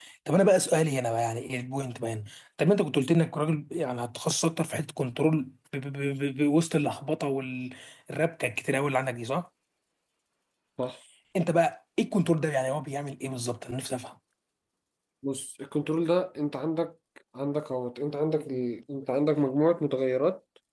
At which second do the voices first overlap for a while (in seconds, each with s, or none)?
none